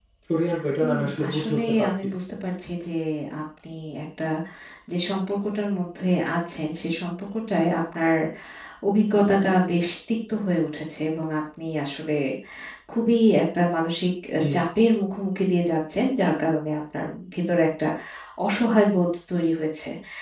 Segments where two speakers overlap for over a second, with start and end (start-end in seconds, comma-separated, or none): 0.8-2.1